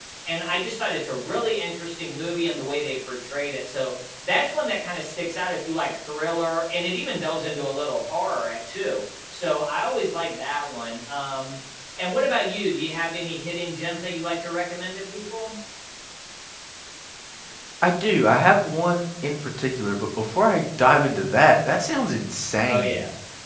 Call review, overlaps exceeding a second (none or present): none